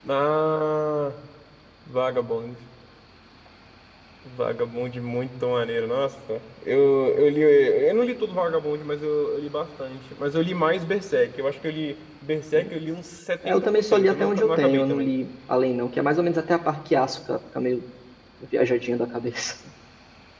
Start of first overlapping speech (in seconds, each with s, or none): 13.4 s